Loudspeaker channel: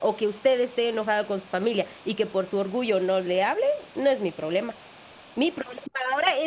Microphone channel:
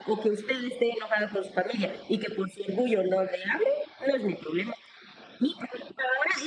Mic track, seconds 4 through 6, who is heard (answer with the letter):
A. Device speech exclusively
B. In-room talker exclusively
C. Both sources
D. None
A